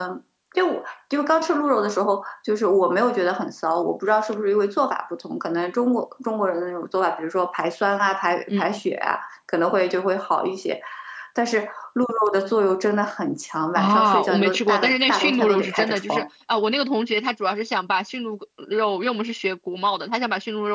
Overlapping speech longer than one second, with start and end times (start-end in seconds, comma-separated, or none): 13.8-16.2